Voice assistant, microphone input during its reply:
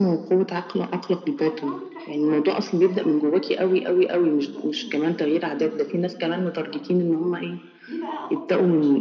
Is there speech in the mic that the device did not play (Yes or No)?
Yes